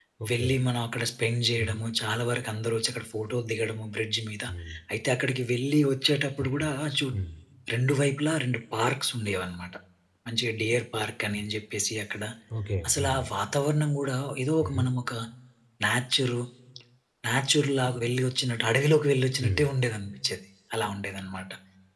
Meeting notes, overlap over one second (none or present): none